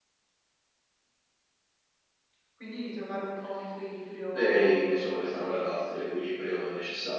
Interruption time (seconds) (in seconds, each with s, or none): 4.3 s